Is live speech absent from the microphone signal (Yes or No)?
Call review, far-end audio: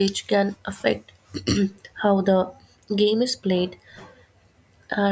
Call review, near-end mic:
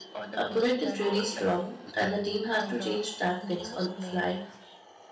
No